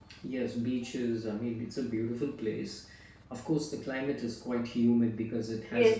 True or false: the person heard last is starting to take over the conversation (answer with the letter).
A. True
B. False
A